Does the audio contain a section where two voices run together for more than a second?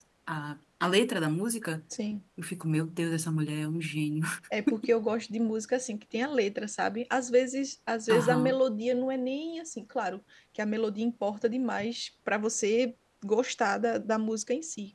No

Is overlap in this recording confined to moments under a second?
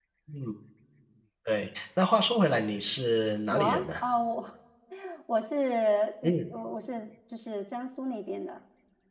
Yes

